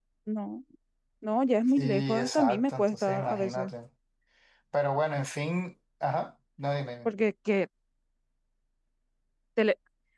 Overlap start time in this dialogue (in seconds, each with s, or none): 1.8 s